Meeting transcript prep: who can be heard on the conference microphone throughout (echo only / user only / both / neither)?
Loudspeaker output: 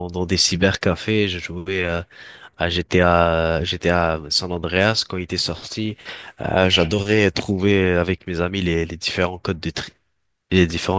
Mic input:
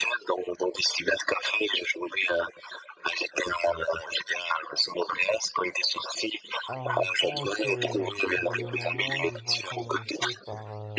both